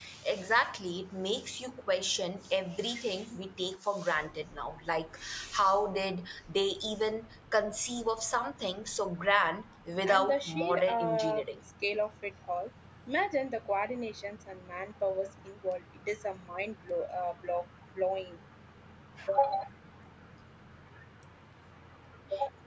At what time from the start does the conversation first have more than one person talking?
10.1 s

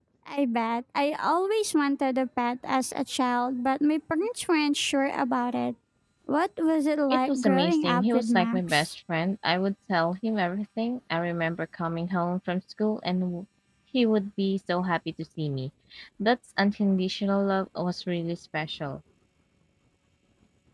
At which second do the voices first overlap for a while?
7.1 s

